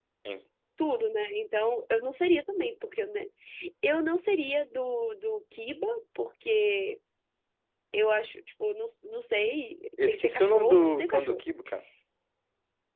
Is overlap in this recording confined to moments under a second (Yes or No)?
No